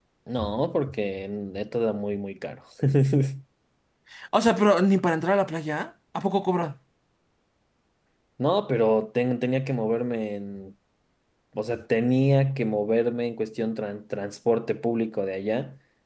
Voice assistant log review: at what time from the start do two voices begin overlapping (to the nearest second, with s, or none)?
none